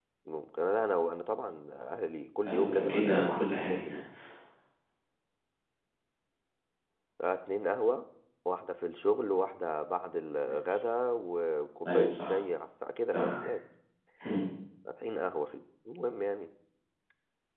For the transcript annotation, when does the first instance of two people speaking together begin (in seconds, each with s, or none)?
2.5 s